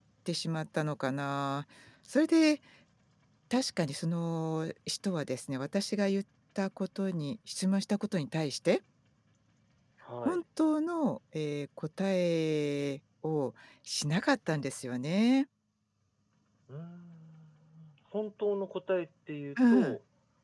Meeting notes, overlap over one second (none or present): none